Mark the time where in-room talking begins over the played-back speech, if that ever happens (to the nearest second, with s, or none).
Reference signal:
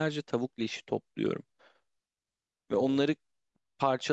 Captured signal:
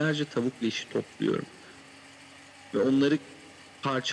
none